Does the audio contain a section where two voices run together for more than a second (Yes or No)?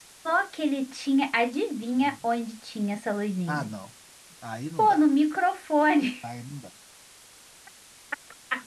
No